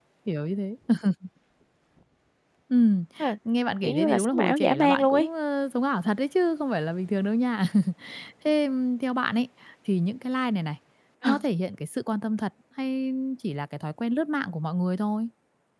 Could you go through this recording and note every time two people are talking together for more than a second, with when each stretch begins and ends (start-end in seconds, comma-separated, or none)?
3.8-5.3